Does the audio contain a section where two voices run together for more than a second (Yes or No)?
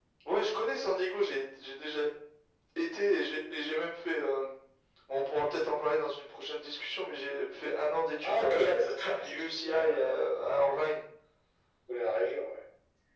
Yes